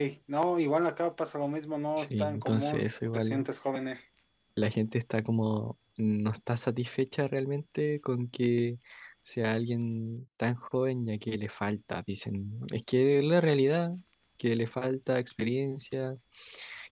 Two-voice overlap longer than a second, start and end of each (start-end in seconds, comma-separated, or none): 1.9-3.5